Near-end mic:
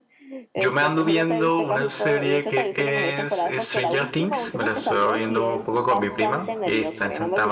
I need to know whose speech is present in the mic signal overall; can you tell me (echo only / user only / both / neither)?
both